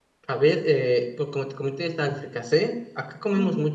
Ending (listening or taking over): taking over